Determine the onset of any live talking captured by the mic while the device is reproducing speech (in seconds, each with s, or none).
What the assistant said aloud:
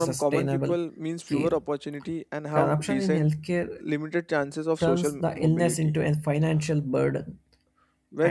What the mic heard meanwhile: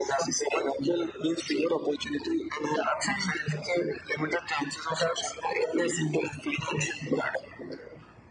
none